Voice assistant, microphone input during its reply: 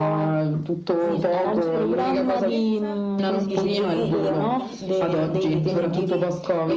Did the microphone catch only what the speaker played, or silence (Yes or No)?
No